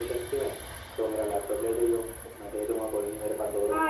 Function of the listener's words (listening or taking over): taking over